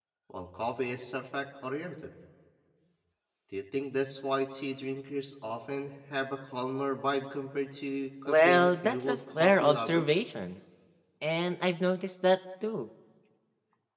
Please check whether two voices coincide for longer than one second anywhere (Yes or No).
Yes